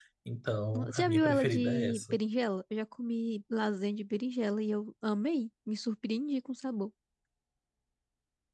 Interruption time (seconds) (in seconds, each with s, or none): 0.7 s